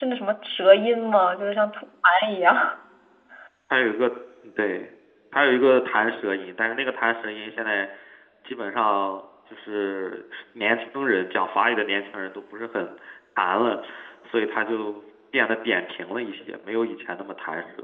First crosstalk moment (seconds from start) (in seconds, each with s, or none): none